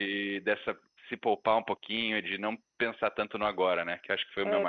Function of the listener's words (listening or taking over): taking over